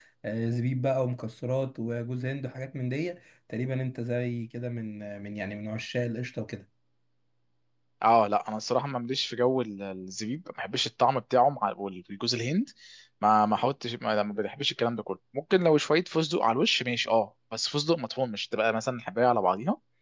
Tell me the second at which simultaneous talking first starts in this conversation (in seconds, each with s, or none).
none